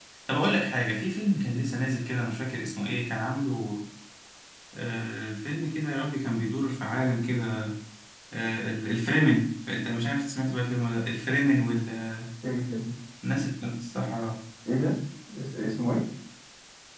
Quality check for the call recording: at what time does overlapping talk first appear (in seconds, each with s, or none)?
none